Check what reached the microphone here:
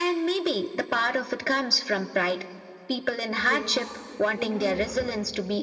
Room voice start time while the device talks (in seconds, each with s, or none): 3.5 s